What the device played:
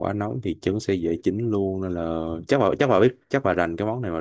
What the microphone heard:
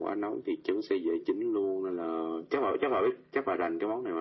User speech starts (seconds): none

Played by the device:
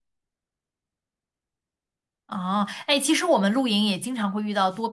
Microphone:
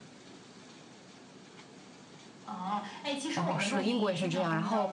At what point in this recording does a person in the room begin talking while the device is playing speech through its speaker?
3.3 s

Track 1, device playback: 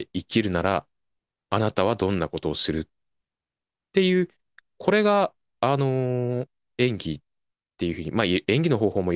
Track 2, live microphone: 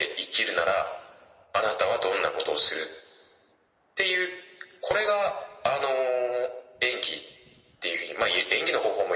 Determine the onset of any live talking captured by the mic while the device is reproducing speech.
none

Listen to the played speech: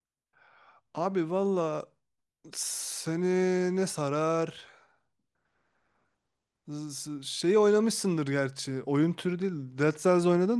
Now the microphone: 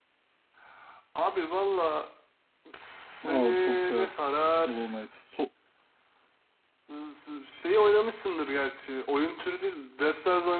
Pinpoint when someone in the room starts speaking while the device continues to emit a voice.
3.2 s

